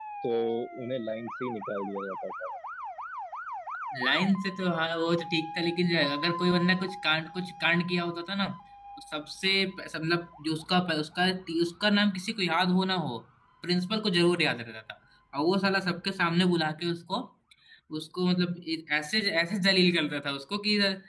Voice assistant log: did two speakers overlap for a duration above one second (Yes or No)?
No